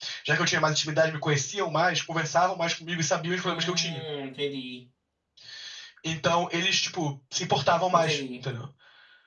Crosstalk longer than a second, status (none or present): none